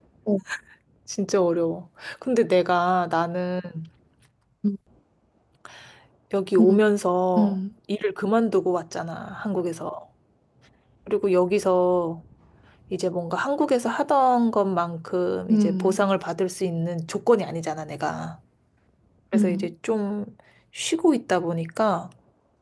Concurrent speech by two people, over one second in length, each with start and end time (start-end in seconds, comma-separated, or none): none